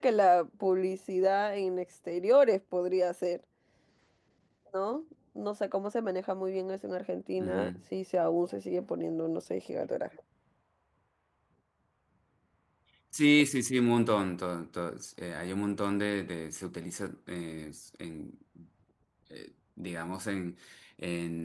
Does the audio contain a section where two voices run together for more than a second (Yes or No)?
No